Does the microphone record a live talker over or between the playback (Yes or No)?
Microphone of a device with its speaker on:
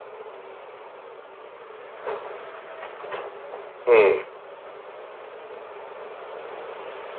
Yes